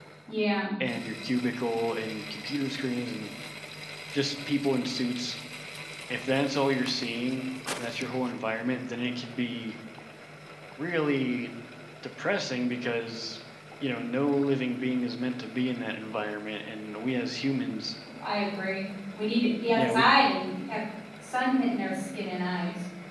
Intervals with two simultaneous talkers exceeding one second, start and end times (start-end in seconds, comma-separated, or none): none